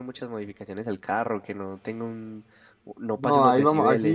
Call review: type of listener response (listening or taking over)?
taking over